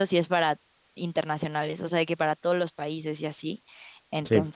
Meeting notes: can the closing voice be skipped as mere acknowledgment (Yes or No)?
Yes